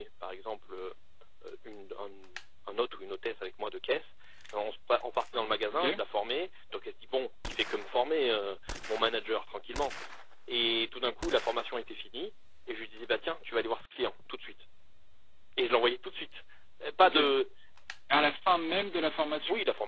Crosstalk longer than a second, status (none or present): none